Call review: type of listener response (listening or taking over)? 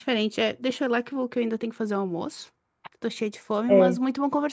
listening